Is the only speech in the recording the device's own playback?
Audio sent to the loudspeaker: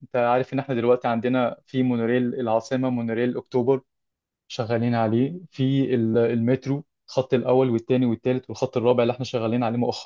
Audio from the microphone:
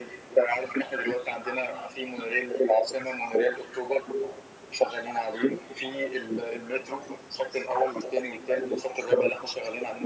Yes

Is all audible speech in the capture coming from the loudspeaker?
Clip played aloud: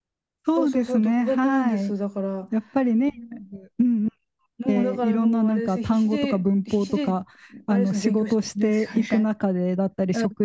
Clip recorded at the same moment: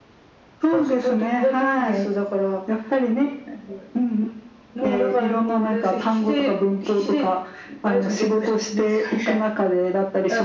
Yes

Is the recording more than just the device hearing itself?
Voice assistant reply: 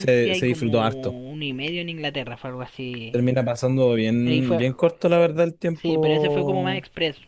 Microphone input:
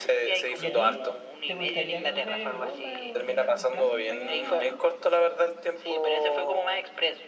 Yes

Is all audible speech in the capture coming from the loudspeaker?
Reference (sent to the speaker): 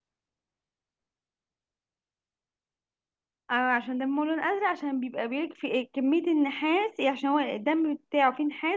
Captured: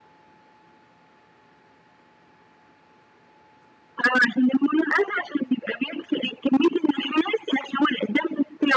Yes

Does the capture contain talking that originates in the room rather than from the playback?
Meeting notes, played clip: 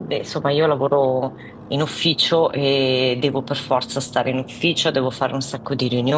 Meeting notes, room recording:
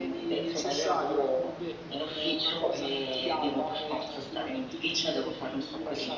Yes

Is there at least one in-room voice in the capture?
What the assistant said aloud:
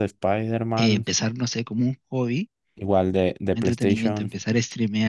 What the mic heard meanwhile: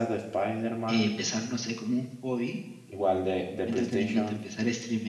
No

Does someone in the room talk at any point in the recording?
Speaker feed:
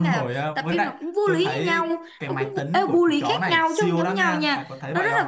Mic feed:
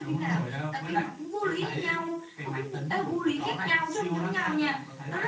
No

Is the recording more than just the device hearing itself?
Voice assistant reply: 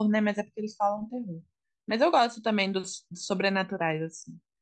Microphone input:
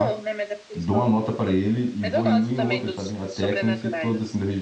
Yes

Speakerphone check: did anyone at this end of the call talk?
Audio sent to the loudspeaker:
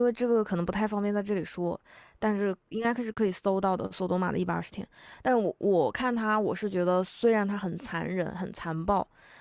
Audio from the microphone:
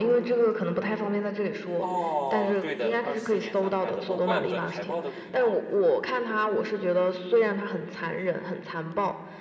Yes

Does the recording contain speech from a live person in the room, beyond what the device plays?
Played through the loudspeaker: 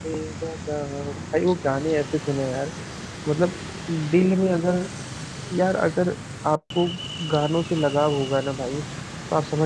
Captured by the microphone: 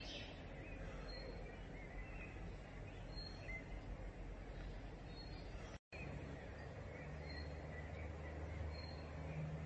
No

